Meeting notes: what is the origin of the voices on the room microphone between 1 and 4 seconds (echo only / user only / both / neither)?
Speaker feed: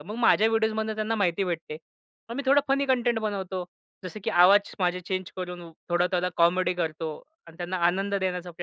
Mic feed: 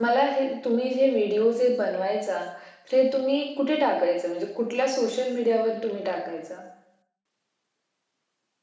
user only